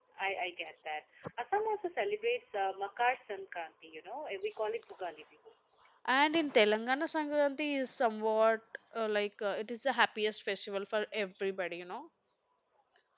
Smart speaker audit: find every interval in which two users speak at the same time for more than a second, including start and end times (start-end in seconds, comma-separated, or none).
none